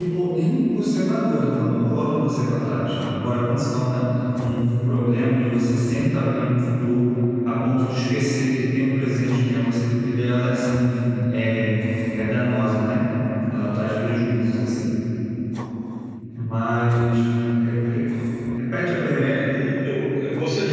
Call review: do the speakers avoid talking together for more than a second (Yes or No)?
Yes